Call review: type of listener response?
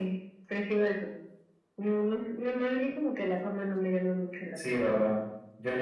taking over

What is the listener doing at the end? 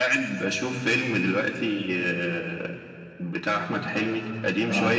listening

